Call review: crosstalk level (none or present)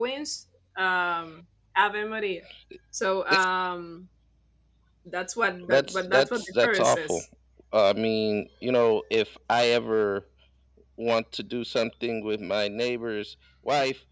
present